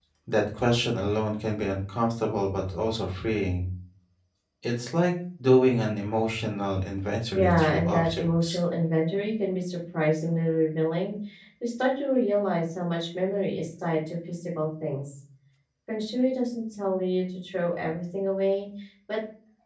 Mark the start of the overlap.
7 s

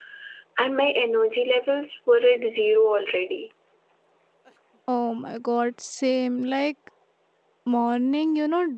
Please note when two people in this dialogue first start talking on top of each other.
none

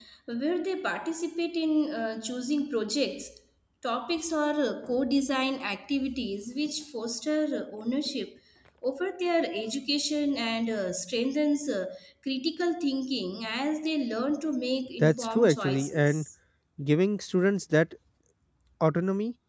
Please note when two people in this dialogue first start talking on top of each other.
15 s

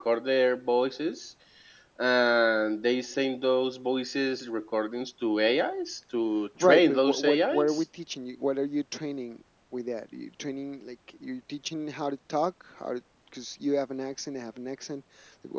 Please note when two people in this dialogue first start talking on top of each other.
7 s

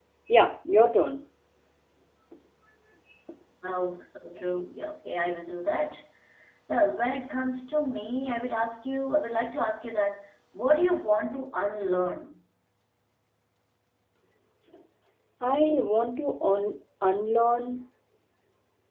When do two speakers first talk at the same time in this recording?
none

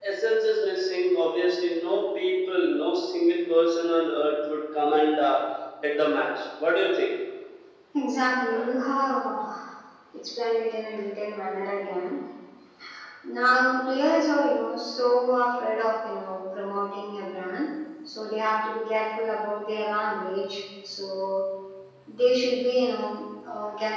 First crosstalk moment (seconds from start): none

